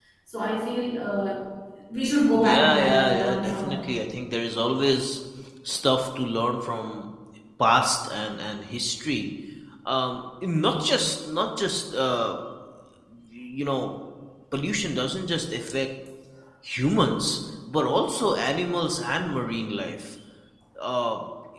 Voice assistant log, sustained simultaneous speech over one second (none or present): present